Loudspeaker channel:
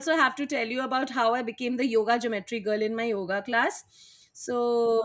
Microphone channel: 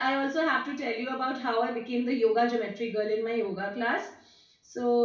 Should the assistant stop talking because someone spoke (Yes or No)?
No